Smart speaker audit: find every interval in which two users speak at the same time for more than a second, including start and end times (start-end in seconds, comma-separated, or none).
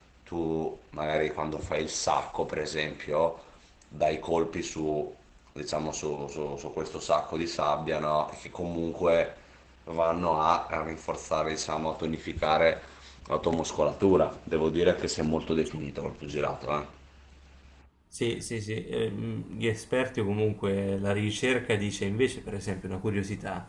none